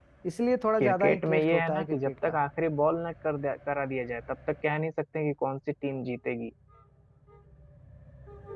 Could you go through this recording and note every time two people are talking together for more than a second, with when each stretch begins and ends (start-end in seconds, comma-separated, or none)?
0.8-2.3